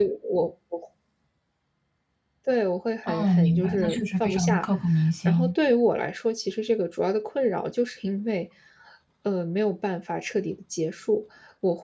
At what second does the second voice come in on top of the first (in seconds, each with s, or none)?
3.1 s